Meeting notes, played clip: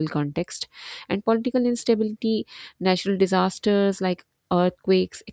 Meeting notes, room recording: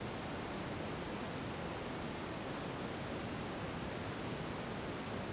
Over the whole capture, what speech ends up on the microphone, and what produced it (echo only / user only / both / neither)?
neither